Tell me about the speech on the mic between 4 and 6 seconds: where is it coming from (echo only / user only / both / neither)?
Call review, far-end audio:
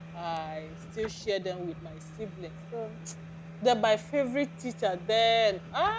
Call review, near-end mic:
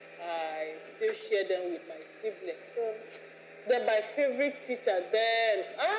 echo only